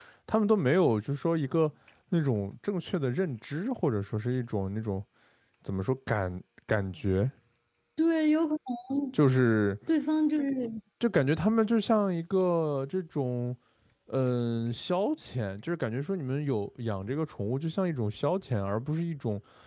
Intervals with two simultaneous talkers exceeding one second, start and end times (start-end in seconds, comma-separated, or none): none